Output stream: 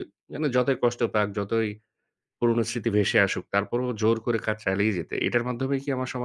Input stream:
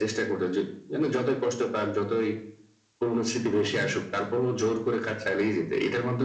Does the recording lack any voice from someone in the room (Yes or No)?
No